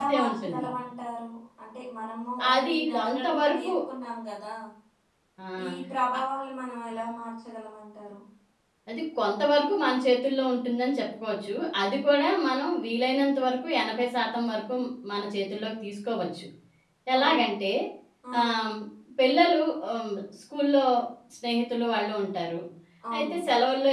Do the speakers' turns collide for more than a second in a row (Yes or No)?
Yes